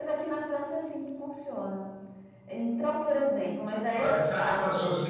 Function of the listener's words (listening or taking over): taking over